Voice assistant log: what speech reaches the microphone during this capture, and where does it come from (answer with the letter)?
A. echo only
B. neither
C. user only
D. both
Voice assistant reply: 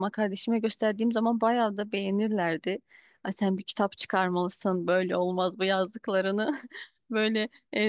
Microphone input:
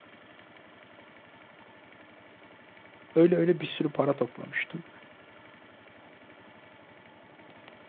C